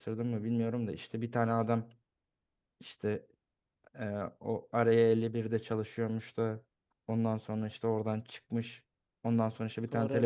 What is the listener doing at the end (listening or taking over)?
listening